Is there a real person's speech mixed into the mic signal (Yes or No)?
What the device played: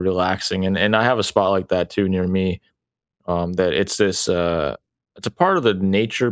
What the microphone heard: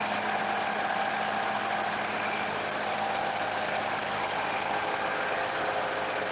No